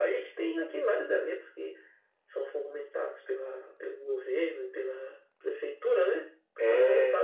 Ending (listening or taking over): listening